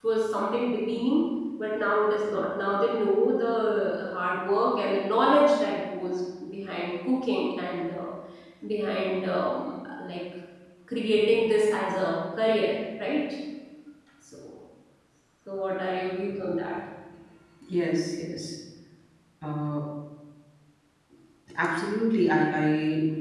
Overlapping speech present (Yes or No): No